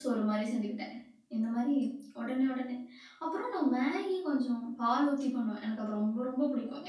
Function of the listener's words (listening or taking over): taking over